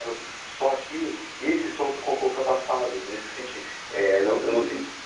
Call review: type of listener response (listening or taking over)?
listening